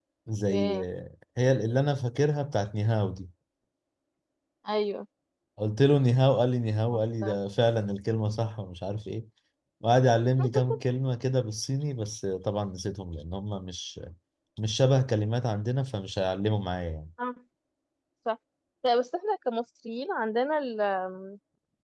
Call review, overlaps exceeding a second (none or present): none